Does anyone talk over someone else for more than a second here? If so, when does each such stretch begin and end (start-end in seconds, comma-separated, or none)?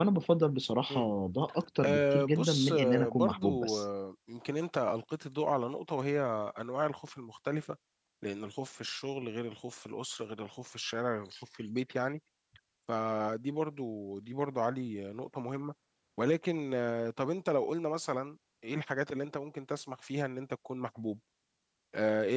1.8-3.8